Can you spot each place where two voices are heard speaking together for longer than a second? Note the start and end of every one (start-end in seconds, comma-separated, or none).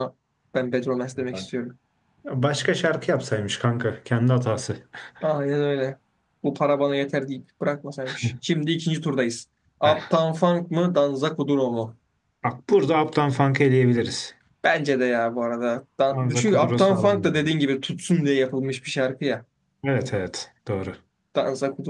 16.1-17.4